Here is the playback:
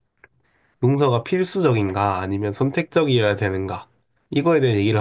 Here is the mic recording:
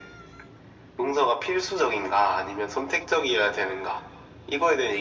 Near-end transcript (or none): none